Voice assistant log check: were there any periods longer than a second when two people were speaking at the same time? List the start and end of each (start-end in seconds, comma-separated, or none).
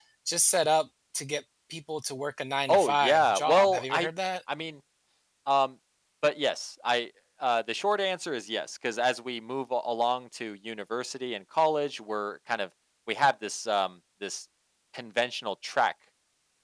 2.7-4.1